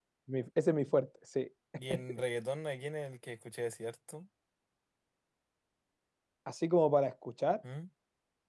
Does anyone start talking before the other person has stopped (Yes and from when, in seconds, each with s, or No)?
No